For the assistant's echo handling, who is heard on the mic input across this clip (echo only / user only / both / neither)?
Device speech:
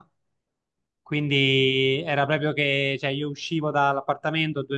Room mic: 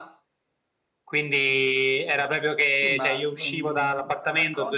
both